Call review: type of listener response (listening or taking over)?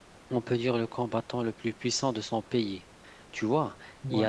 listening